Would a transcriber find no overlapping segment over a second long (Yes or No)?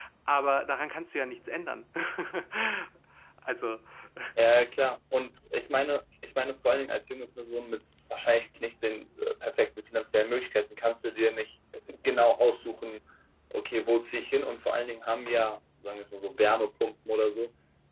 Yes